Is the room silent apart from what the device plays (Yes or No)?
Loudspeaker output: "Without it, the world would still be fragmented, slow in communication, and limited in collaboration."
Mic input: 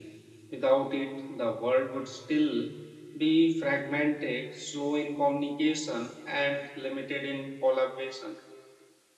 Yes